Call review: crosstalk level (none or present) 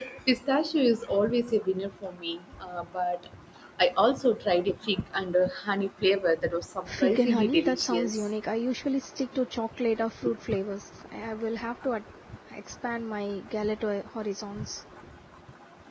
present